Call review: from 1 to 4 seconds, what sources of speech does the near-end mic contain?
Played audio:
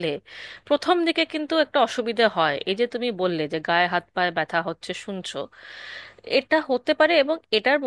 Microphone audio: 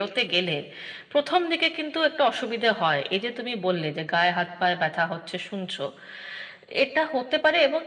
echo only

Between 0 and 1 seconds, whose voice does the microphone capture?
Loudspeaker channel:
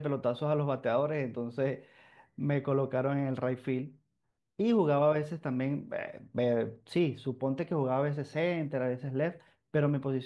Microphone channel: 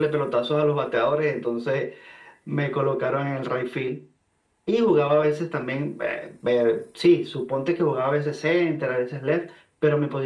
echo only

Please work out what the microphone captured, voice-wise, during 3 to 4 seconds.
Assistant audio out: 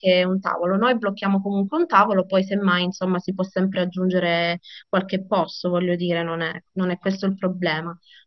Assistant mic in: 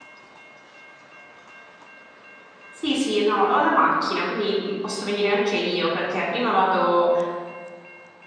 user only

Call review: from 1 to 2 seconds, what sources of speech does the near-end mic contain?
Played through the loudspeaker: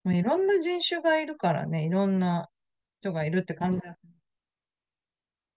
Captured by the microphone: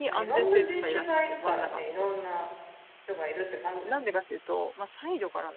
both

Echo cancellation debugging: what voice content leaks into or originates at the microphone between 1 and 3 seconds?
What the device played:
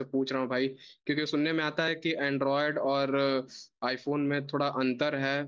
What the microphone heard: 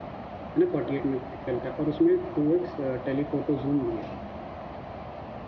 user only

